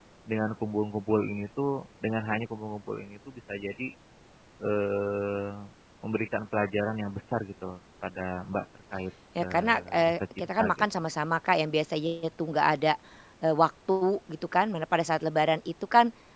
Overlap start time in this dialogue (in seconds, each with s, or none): 9.3 s